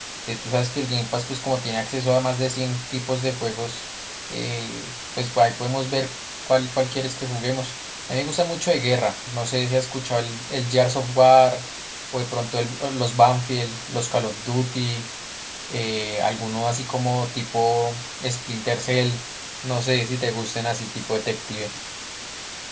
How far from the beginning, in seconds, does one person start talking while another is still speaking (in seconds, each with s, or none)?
none